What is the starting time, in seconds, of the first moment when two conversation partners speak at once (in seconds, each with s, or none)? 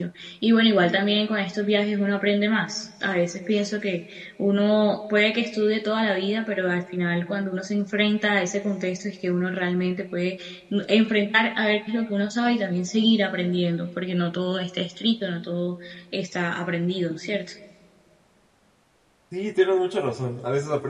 none